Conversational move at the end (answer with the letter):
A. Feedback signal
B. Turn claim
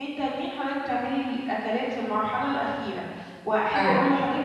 A